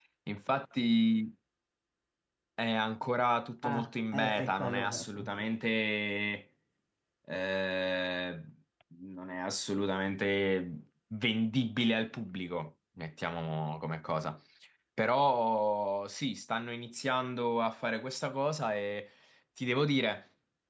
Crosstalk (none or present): present